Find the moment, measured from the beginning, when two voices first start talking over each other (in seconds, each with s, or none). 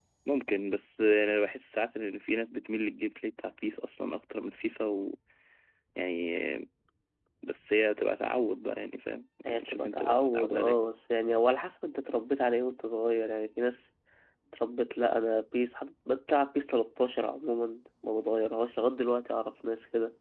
9.4 s